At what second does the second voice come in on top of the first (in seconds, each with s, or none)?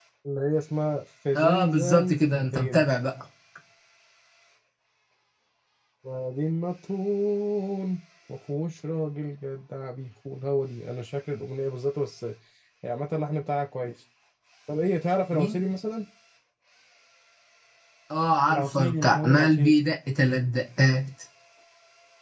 1.3 s